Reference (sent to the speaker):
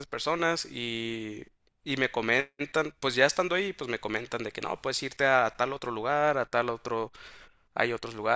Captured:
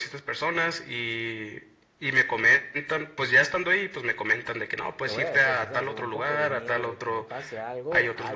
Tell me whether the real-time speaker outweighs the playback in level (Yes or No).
No